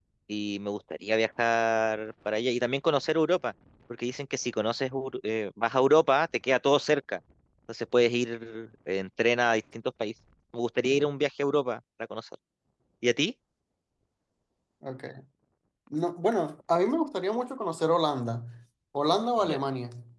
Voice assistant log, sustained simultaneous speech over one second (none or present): none